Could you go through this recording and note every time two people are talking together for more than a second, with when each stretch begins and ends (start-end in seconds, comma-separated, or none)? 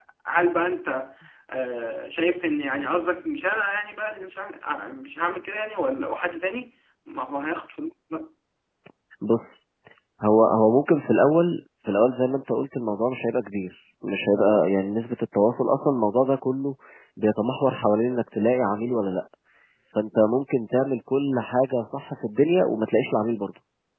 none